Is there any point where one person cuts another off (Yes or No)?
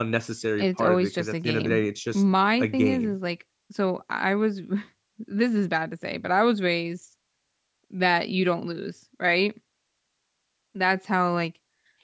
Yes